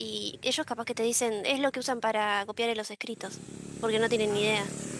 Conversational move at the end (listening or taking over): taking over